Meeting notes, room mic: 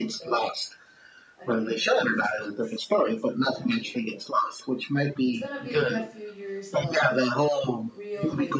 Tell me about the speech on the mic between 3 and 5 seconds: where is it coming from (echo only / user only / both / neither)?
both